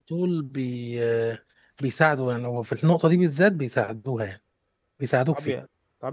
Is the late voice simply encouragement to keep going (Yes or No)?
No